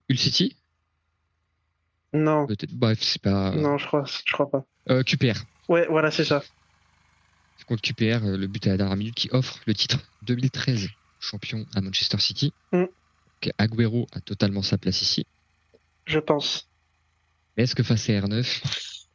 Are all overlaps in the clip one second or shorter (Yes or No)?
Yes